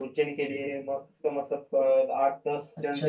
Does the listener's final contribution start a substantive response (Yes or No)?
Yes